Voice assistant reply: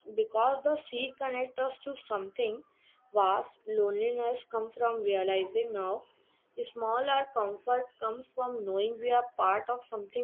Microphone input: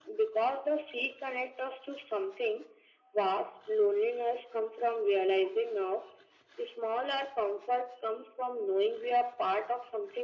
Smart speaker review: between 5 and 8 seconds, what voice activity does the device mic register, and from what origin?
echo only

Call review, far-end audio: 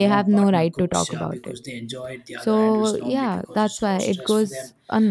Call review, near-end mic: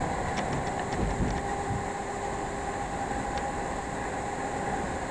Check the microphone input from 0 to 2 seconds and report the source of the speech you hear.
neither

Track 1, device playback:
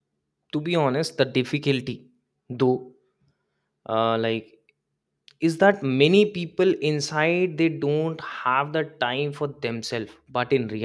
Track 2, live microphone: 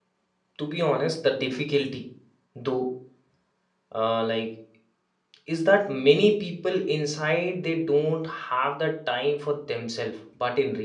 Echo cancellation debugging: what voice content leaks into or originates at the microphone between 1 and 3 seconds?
echo only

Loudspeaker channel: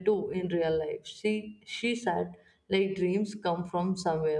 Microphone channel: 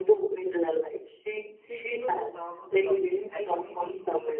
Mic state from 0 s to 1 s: echo only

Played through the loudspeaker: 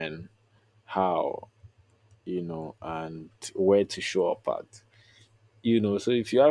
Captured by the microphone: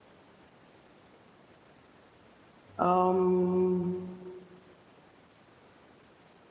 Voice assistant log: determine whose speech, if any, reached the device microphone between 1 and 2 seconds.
neither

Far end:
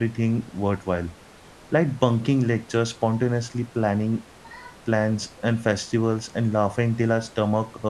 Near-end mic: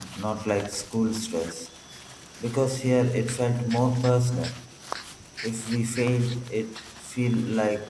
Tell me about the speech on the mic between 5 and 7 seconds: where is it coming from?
user only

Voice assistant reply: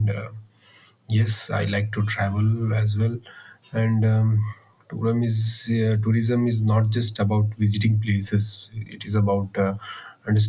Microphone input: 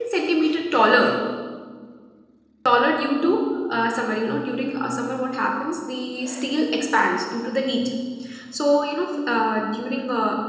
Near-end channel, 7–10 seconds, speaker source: user only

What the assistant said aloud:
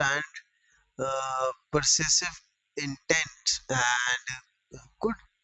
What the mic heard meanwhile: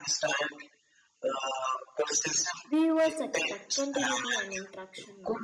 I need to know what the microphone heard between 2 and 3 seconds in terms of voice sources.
both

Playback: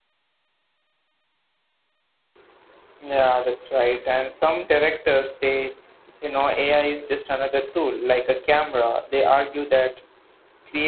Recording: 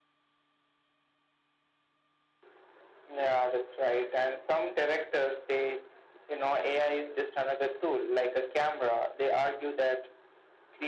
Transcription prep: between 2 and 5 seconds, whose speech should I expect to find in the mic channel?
echo only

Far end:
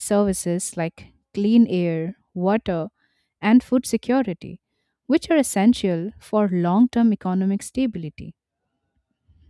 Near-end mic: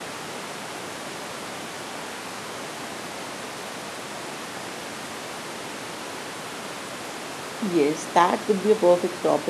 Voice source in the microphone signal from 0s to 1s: neither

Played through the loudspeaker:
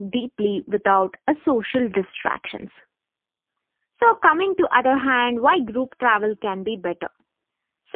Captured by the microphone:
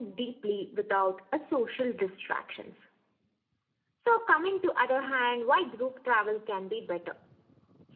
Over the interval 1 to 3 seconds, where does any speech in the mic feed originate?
echo only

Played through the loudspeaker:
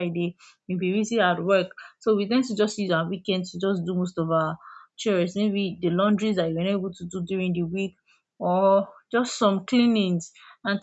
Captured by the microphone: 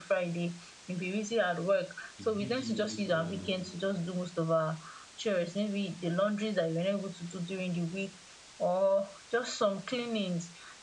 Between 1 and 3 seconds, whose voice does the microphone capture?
both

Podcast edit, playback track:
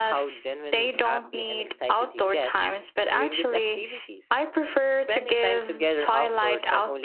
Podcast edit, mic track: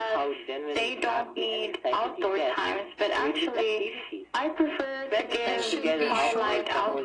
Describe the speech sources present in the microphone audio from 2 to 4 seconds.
echo only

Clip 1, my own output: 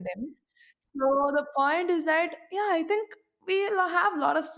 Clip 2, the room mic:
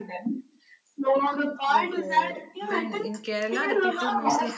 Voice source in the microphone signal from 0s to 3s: both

